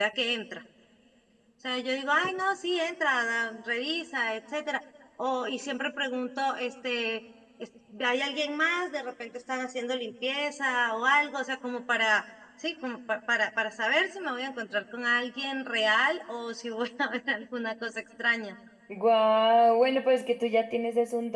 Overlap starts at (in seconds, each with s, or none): none